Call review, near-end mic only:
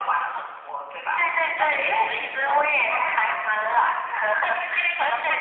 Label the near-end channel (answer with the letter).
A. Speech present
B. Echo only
B